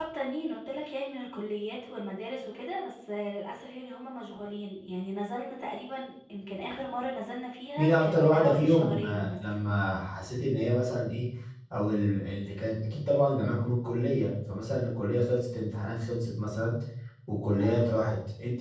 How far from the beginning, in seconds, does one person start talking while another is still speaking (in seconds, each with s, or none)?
7.8 s